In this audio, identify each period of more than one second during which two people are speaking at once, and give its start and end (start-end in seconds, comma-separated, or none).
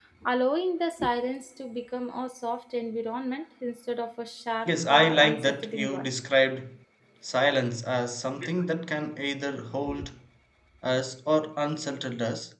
4.7-6.1